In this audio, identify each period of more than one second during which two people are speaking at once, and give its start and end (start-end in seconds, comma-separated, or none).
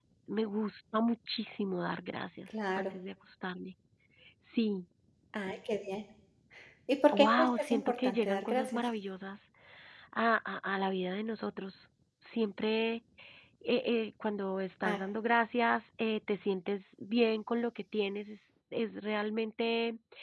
7.1-8.8